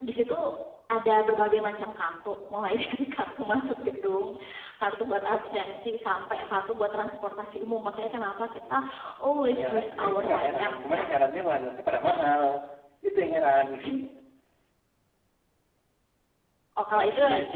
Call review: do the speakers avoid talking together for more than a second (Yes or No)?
No